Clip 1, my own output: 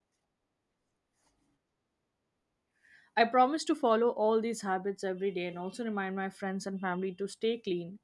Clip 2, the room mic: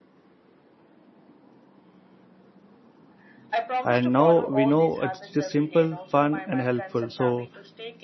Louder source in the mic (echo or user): user